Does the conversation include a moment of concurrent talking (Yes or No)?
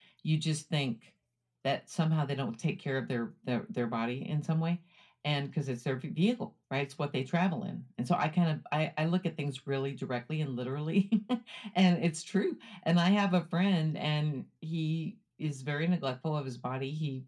No